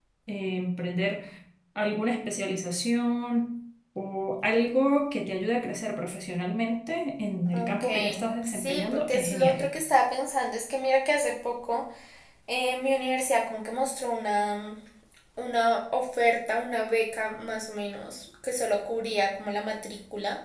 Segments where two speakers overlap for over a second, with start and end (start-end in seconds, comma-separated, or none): 7.5-9.5